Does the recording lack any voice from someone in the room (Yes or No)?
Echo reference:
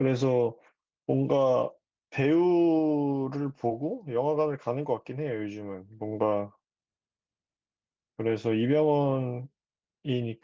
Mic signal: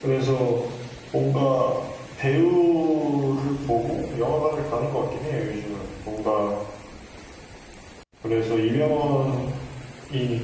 Yes